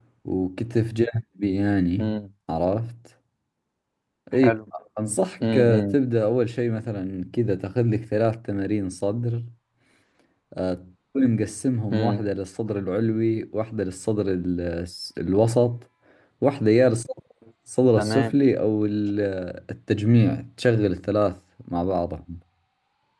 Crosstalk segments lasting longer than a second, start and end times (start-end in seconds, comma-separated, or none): none